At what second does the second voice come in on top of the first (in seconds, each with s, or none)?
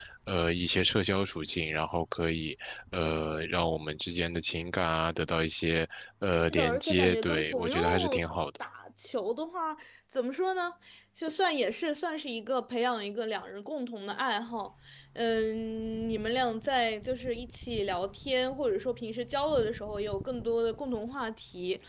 6.5 s